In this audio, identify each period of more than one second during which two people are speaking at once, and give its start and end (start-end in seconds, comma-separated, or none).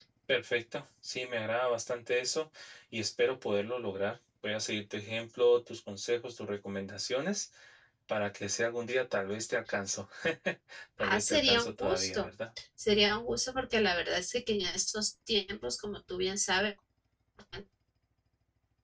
11.0-12.3